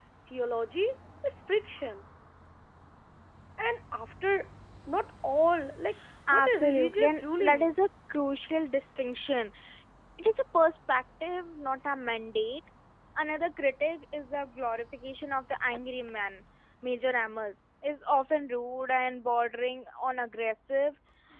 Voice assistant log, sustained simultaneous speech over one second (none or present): present